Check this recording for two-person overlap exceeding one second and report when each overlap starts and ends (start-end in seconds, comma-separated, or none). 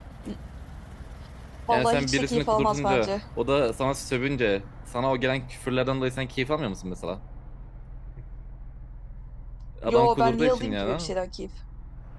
1.7-3.1, 9.9-11.1